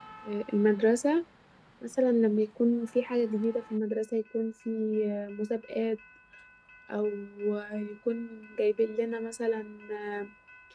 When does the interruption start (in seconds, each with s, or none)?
none